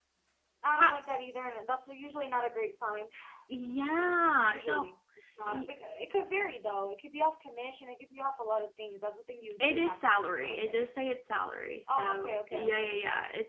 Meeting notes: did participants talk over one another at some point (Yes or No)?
Yes